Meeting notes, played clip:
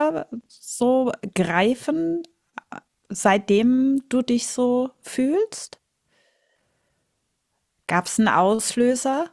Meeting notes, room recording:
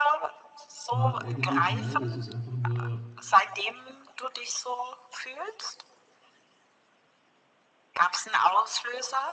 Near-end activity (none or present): present